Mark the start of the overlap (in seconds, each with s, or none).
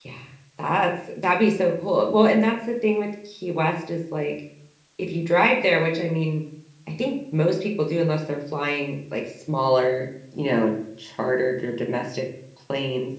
none